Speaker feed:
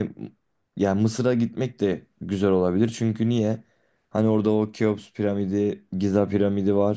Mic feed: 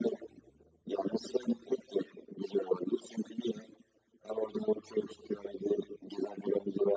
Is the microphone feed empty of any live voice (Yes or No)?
Yes